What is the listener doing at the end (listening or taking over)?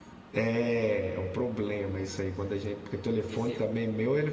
listening